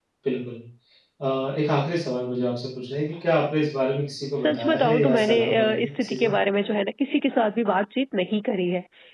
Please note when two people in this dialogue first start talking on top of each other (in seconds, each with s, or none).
4.3 s